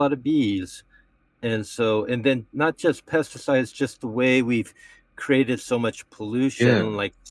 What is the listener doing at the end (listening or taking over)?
listening